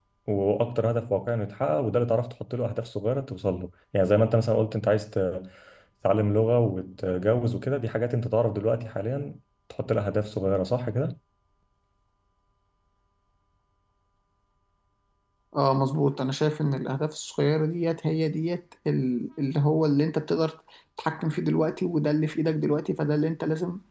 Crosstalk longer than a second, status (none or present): none